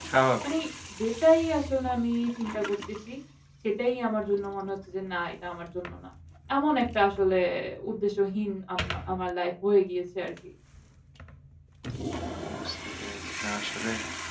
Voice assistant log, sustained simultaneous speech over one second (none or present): none